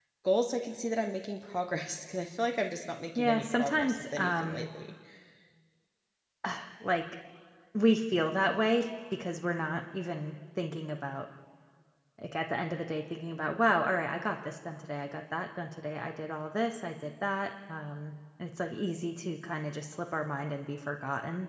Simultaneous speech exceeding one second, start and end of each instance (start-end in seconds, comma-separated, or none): 3.1-4.7